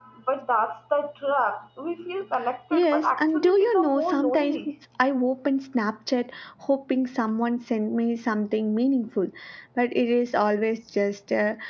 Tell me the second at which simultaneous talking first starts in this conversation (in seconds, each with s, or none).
2.7 s